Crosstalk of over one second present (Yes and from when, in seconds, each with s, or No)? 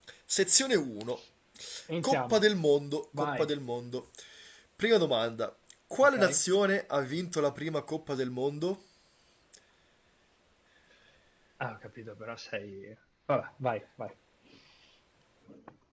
No